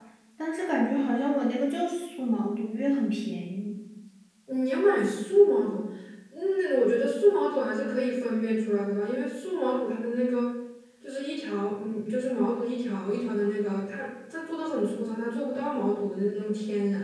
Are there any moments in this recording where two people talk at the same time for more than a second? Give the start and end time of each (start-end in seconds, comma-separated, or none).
none